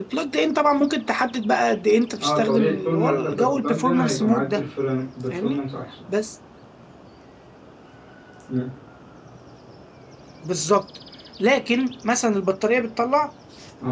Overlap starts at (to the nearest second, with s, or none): 2 s